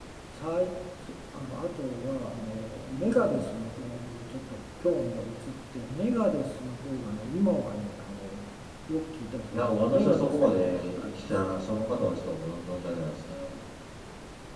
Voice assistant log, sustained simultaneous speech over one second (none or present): present